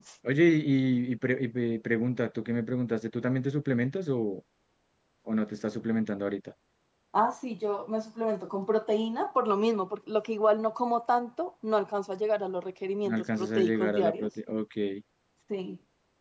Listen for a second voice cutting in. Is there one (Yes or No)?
Yes